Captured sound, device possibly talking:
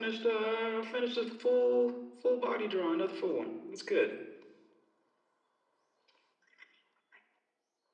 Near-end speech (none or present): none